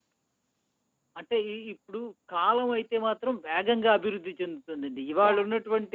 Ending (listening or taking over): listening